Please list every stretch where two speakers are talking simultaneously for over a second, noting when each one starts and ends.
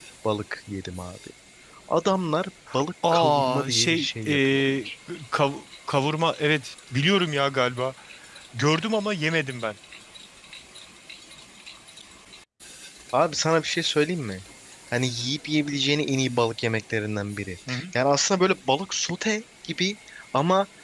3.1-4.9

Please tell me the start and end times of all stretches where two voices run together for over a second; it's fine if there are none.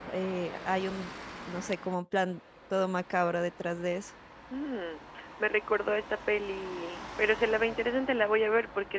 none

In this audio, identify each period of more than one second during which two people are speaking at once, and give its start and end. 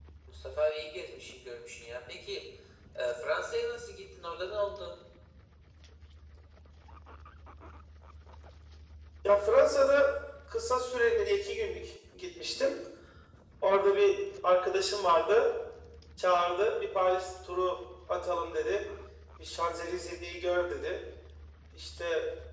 none

